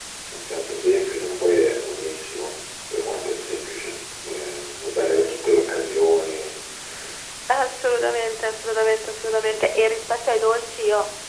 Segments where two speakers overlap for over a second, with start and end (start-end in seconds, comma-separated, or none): none